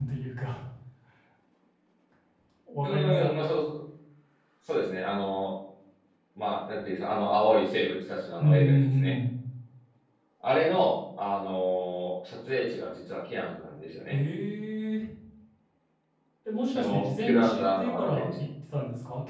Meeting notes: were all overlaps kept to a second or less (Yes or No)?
No